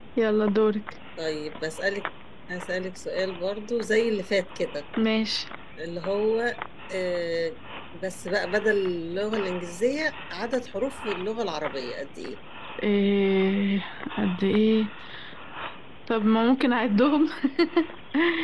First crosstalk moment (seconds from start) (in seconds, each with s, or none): none